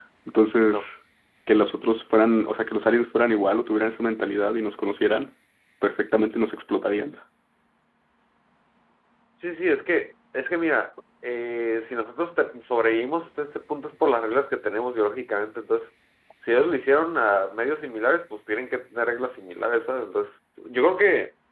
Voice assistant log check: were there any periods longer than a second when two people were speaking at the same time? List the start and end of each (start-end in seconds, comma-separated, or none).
none